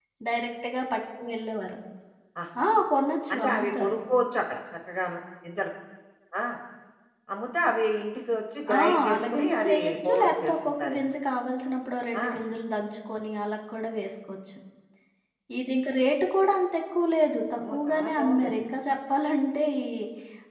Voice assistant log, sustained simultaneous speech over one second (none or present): present